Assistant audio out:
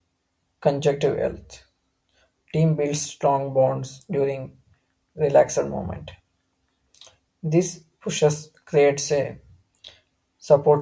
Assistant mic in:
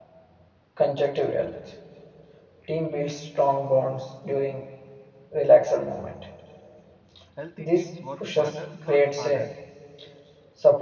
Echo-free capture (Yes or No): No